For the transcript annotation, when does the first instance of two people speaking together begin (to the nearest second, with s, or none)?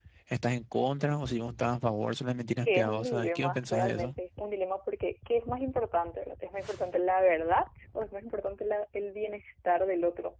2 s